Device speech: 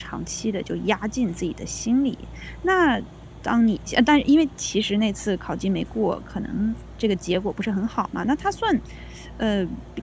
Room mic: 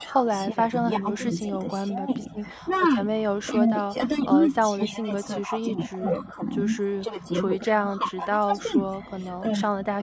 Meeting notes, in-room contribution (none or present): present